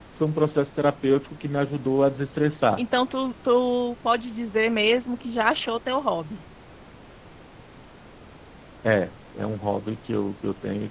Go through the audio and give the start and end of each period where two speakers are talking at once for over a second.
none

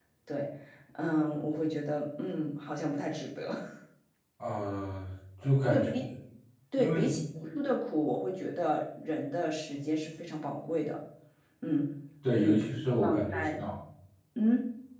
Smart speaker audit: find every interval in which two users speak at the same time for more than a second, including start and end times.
12.3-13.6

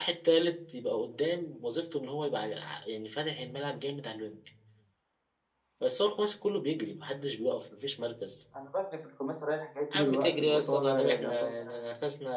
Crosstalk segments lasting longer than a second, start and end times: 9.9-11.8

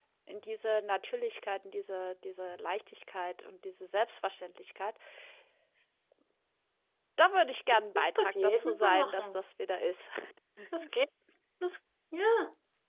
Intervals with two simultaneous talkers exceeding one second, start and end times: 7.7-9.4

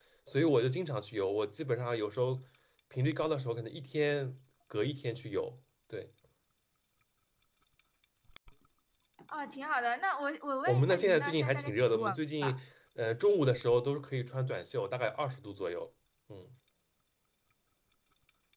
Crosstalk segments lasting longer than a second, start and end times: 10.7-12.2

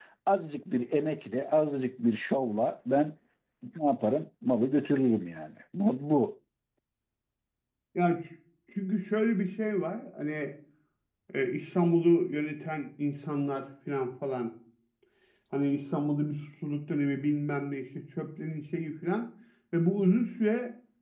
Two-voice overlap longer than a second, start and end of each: none

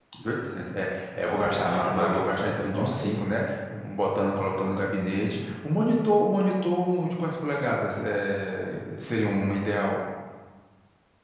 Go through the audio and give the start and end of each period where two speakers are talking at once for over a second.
1.2-3.1

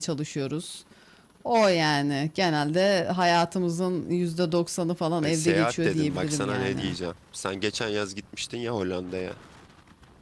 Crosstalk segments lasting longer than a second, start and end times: 5.2-6.9

